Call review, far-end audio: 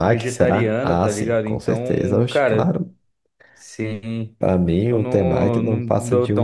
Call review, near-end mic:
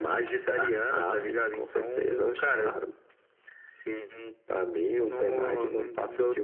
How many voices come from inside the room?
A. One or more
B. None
B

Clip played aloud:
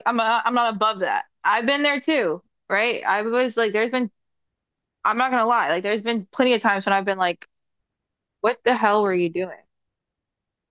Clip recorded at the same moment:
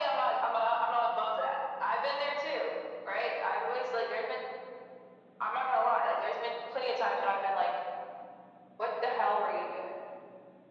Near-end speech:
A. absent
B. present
A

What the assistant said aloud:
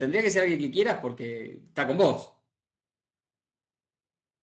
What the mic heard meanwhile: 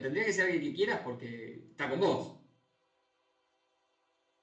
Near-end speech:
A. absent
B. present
A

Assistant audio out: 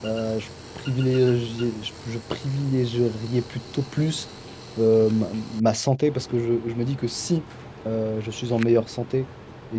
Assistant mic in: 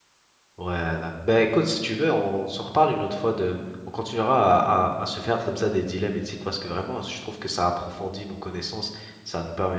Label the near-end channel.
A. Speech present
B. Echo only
A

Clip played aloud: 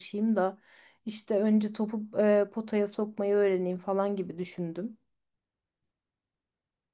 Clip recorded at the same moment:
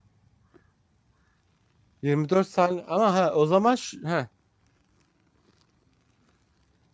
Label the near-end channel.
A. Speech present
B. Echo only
A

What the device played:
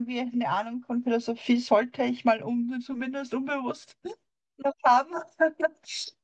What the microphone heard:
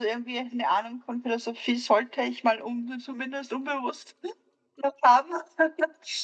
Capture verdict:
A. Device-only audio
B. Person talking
A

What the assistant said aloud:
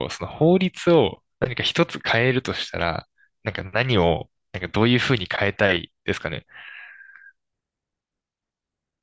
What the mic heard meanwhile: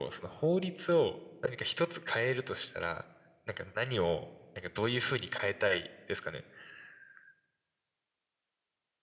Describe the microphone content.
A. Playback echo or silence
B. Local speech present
A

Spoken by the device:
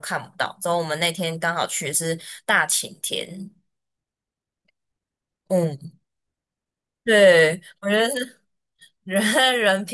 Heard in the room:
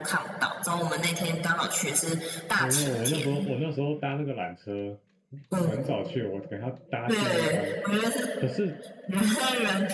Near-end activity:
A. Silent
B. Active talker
B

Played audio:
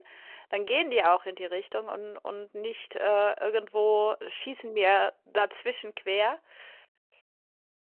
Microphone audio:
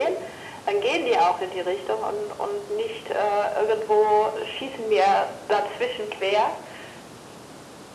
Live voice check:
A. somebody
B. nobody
B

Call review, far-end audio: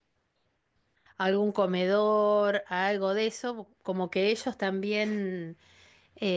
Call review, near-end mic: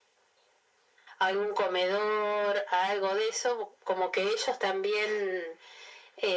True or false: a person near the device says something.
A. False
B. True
A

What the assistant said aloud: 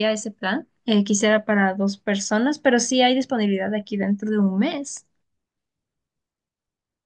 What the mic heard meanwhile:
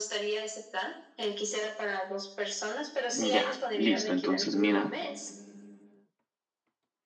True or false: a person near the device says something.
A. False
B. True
B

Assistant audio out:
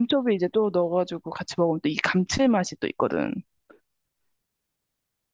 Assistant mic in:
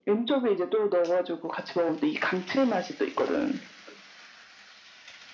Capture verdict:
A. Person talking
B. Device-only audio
B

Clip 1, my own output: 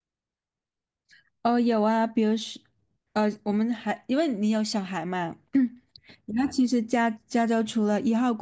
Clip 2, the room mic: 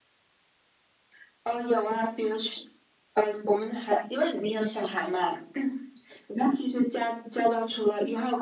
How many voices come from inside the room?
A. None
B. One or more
A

